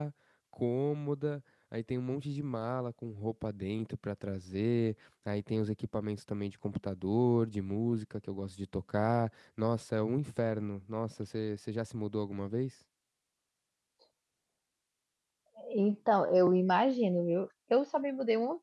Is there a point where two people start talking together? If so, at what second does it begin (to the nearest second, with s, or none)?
none